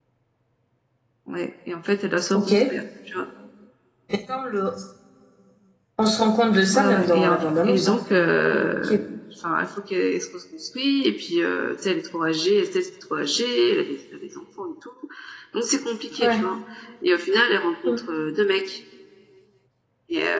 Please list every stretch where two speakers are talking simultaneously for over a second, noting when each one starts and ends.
6.7-8.0

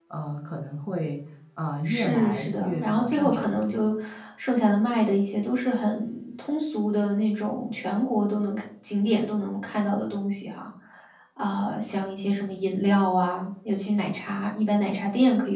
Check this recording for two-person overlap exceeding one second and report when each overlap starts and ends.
1.9-3.5

